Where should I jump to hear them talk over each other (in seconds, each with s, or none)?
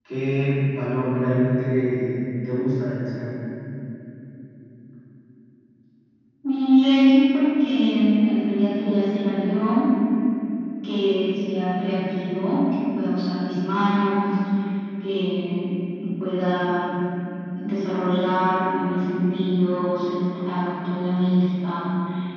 none